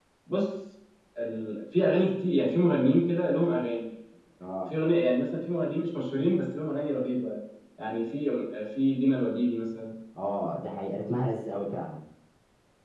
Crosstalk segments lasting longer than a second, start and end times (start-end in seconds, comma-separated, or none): none